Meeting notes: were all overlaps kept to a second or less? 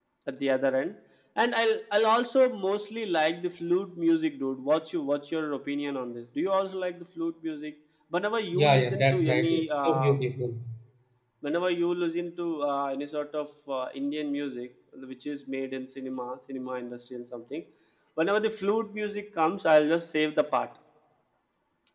No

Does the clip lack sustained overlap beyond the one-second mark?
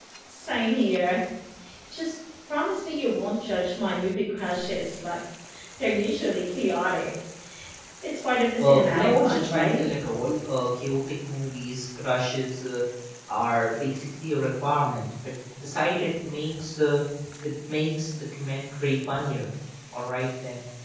No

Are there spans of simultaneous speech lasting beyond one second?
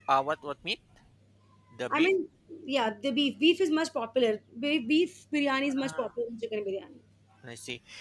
No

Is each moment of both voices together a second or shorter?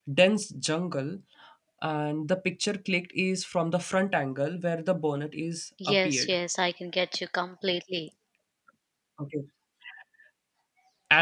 Yes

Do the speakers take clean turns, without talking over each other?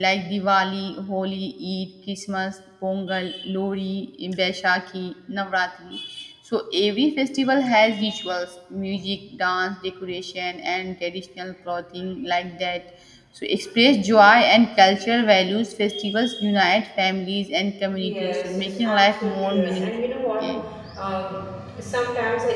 No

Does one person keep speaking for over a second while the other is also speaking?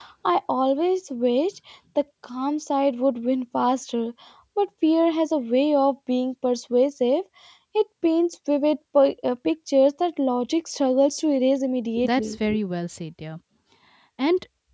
No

